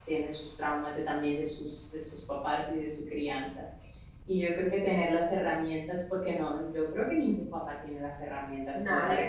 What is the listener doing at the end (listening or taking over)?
listening